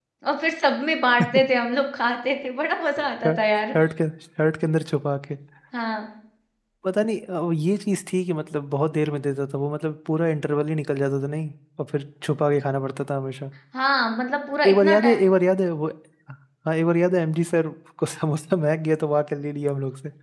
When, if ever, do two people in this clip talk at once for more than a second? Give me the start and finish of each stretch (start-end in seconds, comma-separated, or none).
none